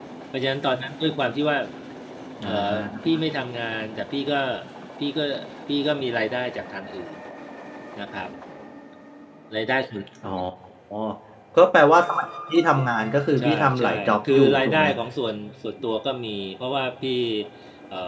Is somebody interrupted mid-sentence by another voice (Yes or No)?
Yes